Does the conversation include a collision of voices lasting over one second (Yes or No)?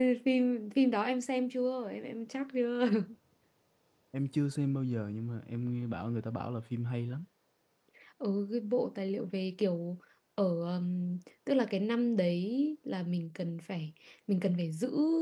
No